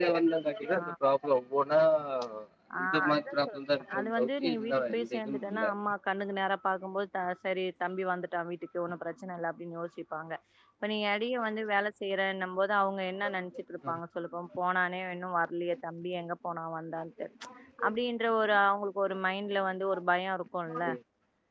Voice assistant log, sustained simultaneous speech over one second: present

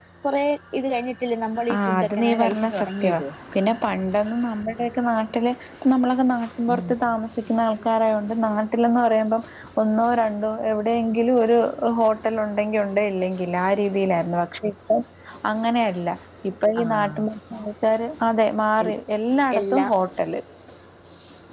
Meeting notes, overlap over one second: present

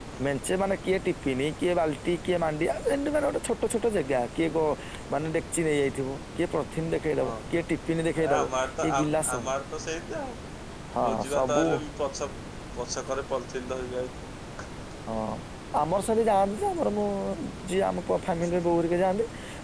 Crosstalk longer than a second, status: present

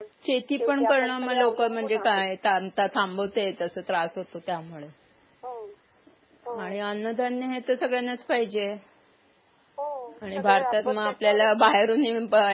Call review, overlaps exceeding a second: present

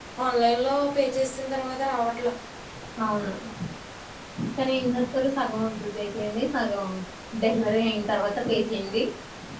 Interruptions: none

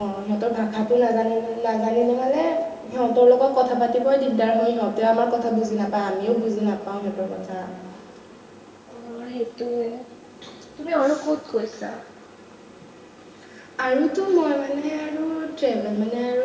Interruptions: none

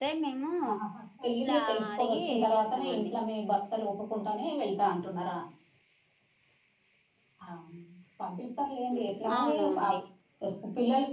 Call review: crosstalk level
present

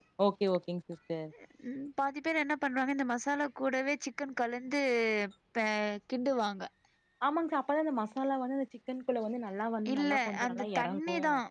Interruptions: present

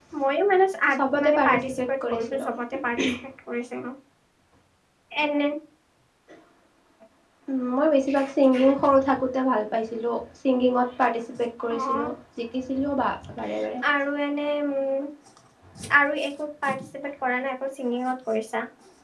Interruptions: present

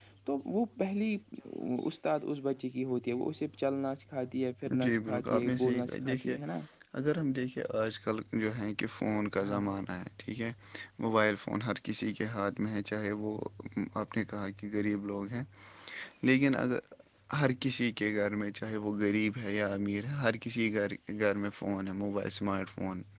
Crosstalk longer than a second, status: present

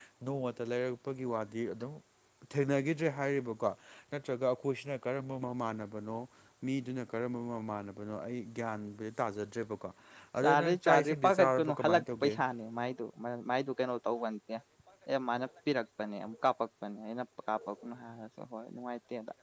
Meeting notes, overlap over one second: present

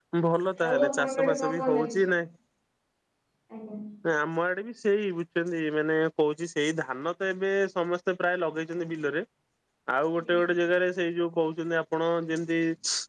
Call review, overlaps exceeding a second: present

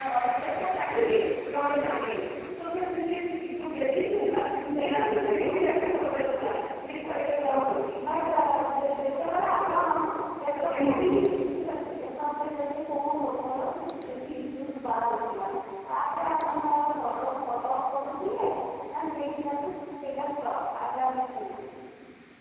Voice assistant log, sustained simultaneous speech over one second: present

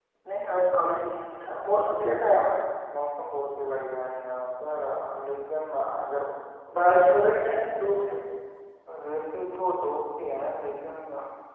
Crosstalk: none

